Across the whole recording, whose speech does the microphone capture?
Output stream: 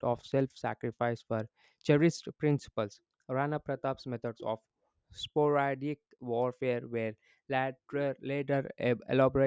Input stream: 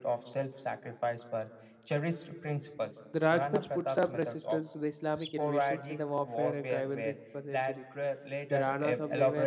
both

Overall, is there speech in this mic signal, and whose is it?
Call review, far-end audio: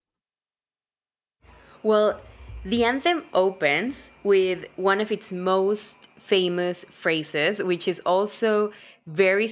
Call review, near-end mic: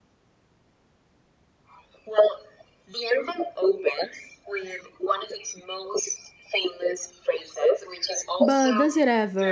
both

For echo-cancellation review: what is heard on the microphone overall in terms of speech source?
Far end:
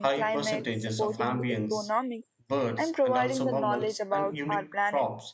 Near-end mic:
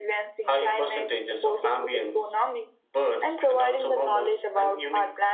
echo only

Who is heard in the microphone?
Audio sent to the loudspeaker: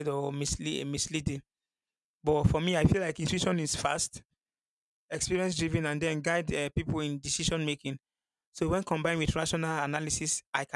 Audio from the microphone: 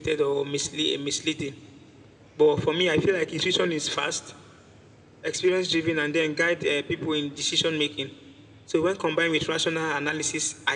echo only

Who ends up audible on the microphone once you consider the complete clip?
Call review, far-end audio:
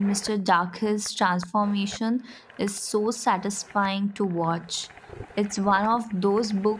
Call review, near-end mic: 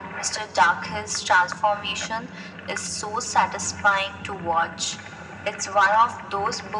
echo only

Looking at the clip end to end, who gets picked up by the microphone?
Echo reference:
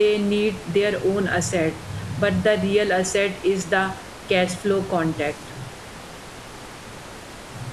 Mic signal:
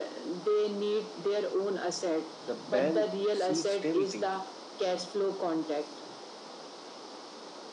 both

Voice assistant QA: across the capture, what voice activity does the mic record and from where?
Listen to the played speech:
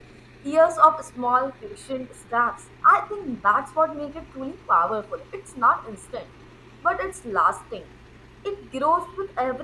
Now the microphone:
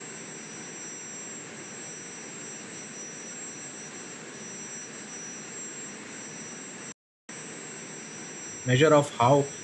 user only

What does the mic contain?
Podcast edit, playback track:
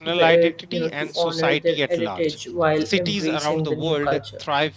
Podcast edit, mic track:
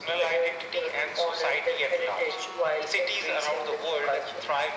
echo only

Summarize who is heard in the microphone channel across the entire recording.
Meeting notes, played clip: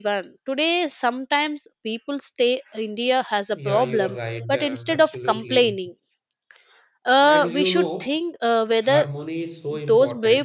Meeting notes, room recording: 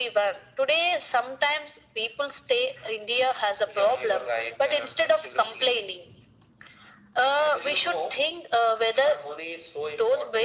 echo only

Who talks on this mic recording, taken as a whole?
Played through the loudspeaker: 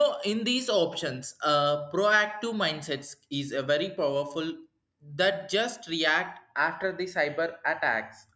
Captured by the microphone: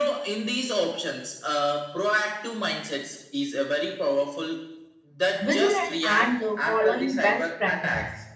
both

